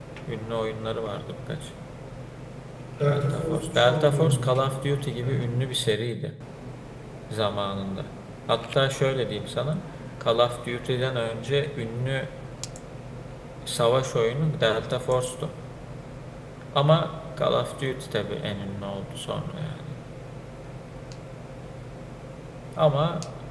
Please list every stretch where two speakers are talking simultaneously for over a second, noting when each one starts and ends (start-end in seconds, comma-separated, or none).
3.0-4.5